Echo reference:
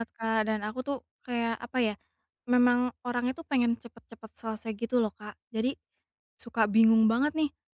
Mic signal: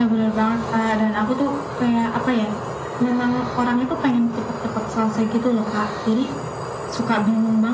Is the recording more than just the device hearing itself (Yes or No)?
No